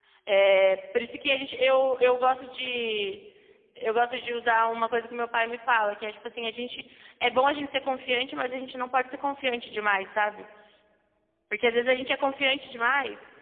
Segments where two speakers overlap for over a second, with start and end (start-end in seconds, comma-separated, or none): none